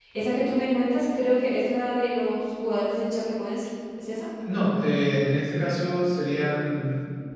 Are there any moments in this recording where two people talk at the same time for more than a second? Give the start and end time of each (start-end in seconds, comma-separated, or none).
none